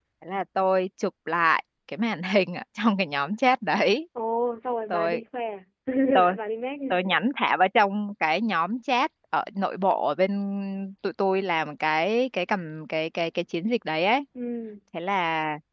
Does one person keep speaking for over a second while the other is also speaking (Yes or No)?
No